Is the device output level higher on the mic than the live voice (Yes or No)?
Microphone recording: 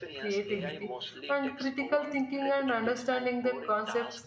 No